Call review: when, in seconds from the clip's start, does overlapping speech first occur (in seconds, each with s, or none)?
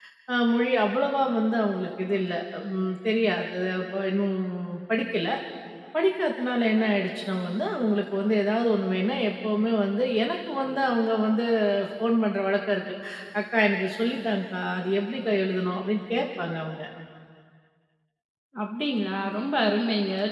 none